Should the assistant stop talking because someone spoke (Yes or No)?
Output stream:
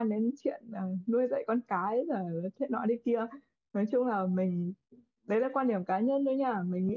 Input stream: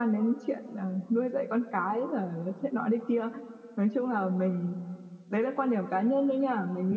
No